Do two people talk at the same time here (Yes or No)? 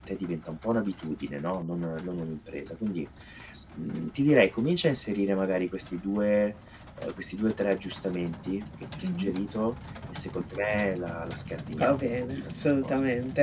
Yes